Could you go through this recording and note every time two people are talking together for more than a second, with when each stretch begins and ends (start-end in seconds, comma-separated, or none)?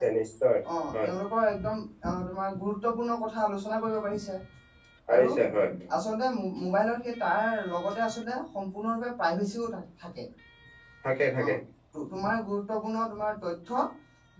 none